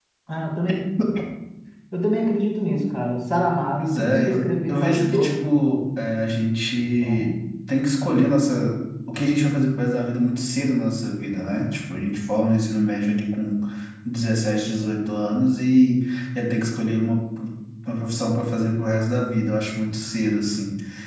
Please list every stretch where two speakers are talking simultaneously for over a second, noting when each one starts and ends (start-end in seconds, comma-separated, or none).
3.8-5.6